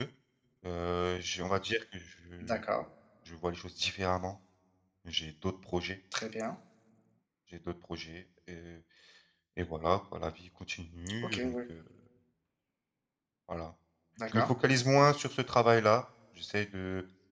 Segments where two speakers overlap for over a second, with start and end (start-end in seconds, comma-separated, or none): none